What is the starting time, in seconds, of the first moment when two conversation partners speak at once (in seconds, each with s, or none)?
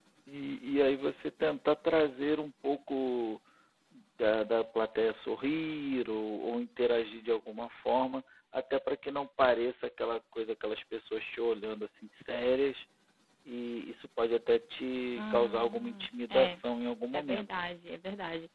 15.2 s